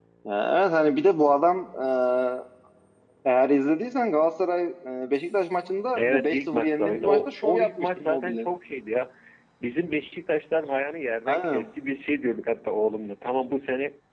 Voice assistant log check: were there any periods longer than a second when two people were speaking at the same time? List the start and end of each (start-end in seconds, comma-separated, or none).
6.0-8.5